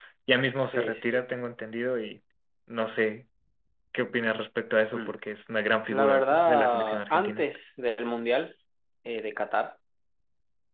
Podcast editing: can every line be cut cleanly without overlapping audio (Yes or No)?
No